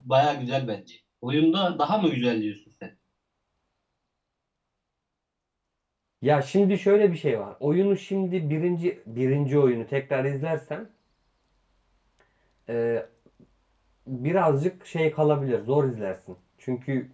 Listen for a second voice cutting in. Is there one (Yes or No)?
No